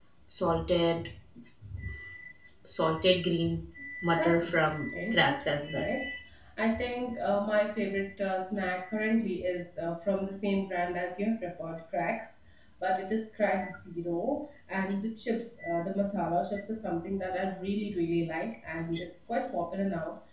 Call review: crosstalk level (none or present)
present